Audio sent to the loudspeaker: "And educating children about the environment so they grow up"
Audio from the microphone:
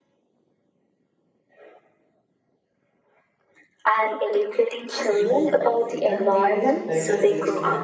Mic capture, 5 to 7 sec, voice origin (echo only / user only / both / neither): both